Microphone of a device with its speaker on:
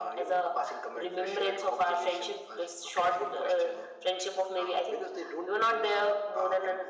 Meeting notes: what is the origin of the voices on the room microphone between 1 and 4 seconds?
echo only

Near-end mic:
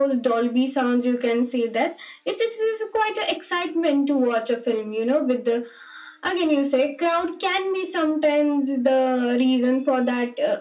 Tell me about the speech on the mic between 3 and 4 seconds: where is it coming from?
echo only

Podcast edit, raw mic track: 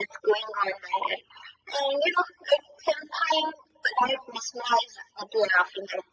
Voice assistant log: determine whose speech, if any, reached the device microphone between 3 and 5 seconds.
echo only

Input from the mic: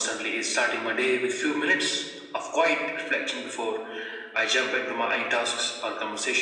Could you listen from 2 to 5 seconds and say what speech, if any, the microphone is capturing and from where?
echo only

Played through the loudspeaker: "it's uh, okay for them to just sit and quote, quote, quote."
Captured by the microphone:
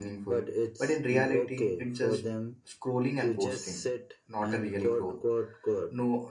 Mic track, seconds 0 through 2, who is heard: both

